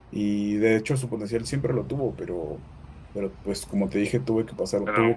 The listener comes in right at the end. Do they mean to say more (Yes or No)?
No